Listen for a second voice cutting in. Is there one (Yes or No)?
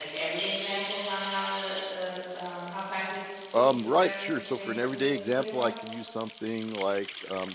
Yes